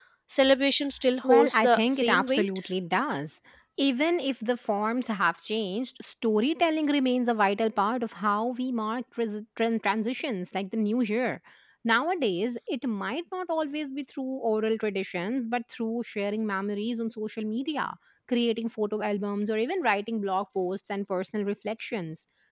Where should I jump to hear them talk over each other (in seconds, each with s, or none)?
1.2 s